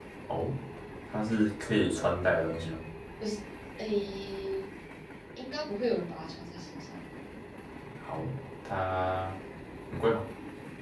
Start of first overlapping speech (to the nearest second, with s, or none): none